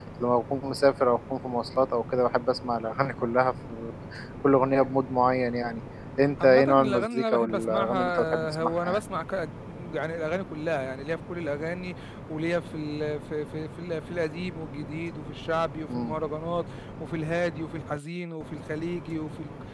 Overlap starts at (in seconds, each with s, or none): 6.4 s